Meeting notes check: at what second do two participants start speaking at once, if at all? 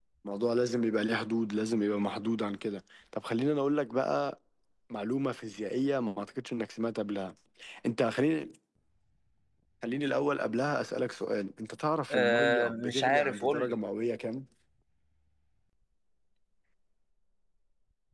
12.1 s

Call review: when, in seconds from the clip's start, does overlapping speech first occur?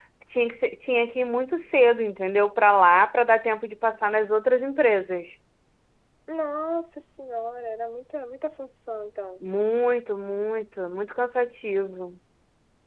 none

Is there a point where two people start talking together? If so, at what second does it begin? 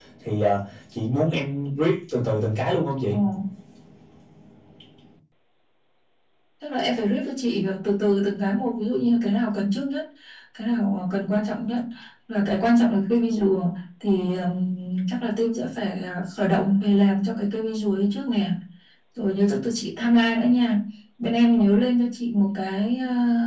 none

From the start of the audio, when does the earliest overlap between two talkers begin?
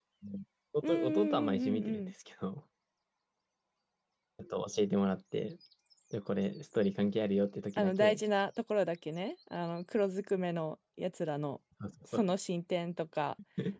0.8 s

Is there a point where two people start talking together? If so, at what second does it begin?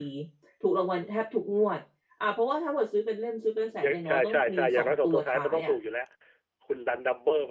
3.8 s

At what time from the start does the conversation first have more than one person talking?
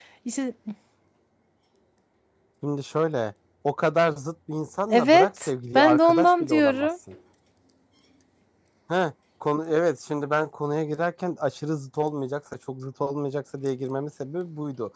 4.9 s

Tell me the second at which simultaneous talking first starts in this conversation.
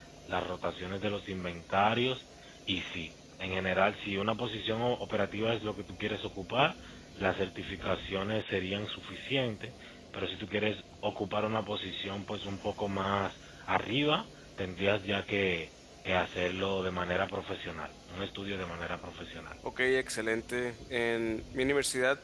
none

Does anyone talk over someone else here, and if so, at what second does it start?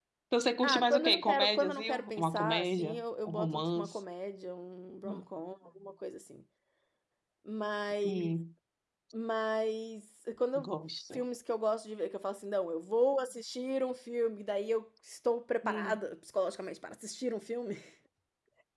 0.6 s

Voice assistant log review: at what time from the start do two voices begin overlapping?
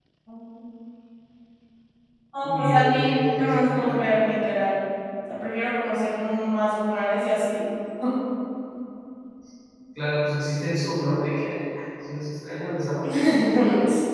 2.4 s

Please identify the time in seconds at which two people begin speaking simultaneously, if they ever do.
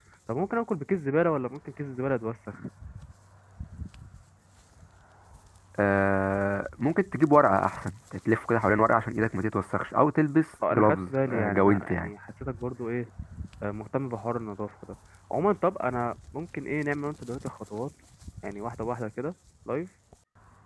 10.6 s

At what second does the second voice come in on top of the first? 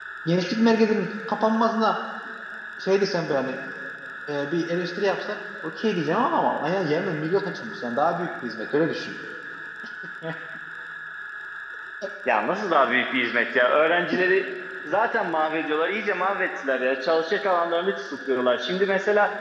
none

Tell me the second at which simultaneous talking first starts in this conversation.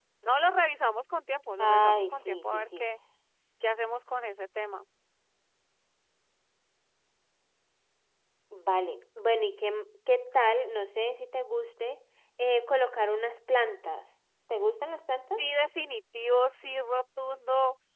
1.6 s

